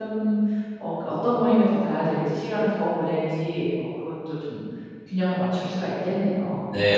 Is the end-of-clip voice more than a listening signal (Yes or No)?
Yes